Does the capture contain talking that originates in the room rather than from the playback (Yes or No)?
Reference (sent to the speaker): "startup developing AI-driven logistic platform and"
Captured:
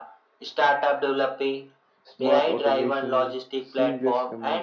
Yes